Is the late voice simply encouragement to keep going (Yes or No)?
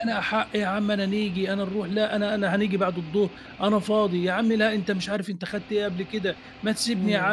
Yes